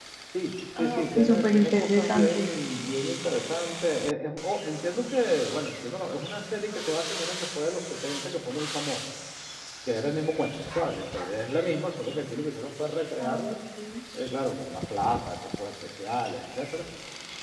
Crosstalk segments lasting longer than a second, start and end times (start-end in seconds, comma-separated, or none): 0.8-2.5